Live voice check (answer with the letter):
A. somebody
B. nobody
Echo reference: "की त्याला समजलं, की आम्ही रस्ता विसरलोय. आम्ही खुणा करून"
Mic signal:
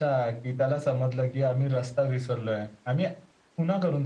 B